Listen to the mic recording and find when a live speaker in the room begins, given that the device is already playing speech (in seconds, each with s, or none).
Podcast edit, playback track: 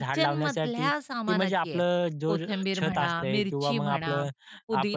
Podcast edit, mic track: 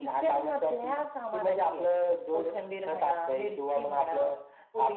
none